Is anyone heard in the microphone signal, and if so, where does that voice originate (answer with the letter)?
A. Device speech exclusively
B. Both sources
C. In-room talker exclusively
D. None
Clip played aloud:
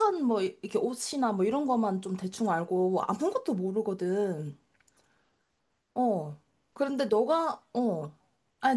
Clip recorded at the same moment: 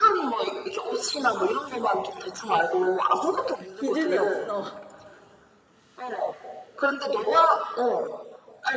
B